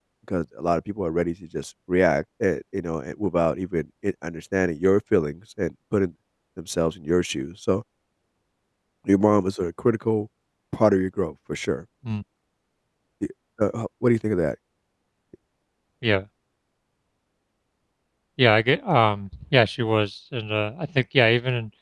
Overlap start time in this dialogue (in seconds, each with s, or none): none